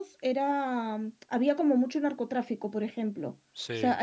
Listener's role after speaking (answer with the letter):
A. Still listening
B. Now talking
A